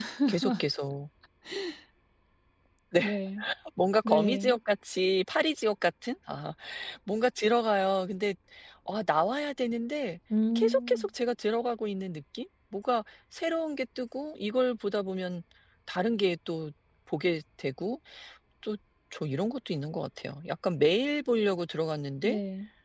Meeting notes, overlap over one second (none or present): none